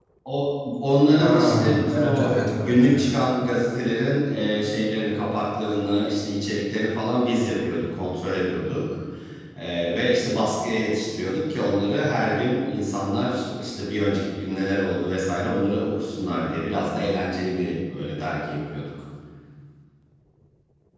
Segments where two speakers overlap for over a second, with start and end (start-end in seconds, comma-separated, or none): 1.2-3.1